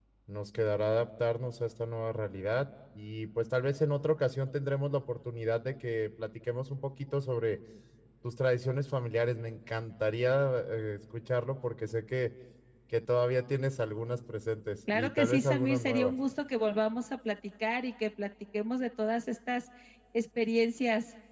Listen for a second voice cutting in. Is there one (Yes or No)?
Yes